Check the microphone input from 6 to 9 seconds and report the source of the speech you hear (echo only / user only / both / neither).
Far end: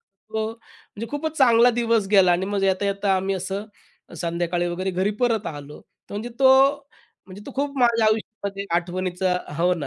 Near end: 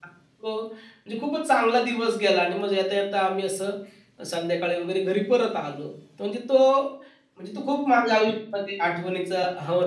echo only